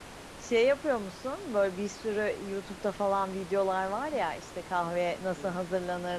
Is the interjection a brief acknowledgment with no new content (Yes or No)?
Yes